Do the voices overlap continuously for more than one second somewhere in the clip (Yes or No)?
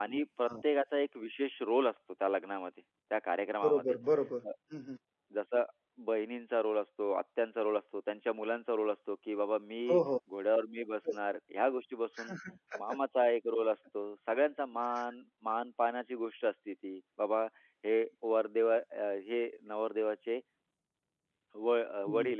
No